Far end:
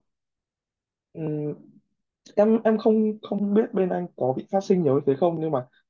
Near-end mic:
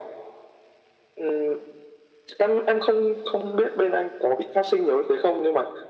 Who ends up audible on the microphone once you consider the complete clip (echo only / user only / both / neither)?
echo only